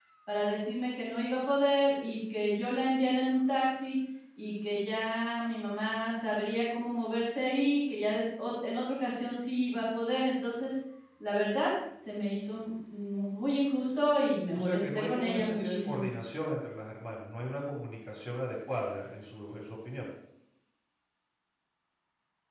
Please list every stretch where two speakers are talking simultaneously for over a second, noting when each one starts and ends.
14.5-16.1

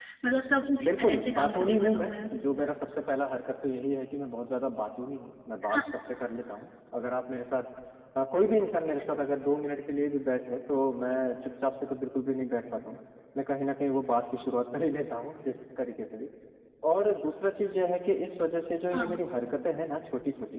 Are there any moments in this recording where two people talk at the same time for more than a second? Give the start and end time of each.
0.8-2.2

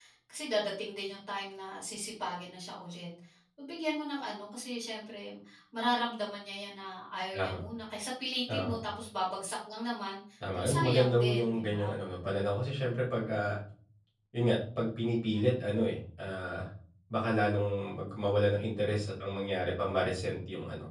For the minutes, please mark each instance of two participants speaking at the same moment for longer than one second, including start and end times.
10.5-12.0

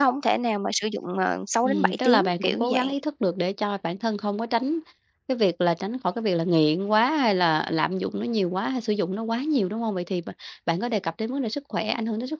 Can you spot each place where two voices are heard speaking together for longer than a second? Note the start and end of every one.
1.6-2.9

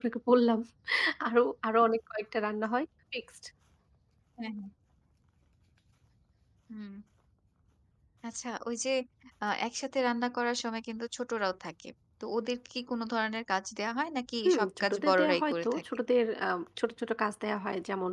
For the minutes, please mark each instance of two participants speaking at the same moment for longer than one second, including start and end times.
14.4-16.0

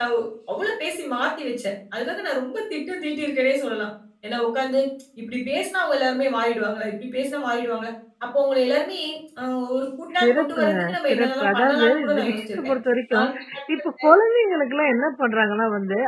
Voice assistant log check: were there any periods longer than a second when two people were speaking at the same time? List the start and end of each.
10.2-12.7

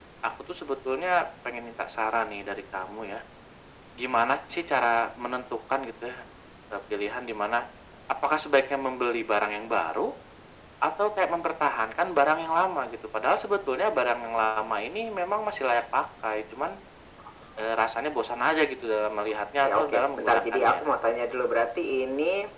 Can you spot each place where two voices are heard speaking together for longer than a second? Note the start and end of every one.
19.6-20.9

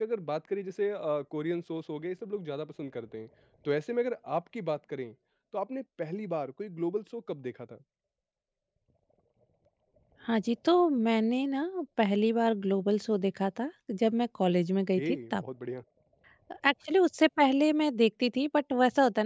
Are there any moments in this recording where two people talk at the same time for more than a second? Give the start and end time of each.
none

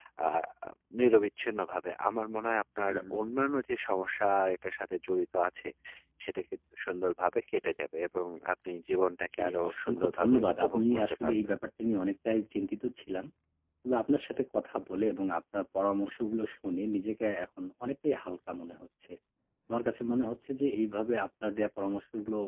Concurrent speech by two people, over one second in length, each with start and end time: 9.3-11.4

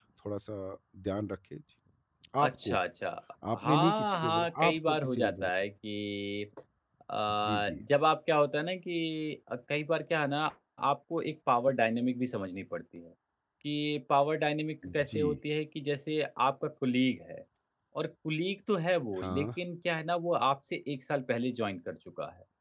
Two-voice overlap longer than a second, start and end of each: 3.6-5.5

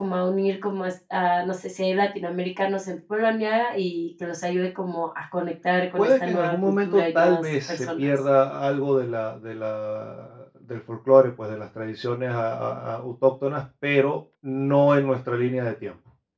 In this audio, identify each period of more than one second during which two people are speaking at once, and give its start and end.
6.0-8.1

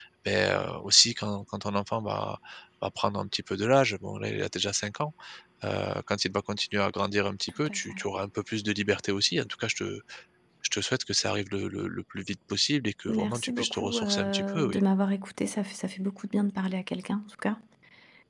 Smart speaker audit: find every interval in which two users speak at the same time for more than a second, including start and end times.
13.1-14.8

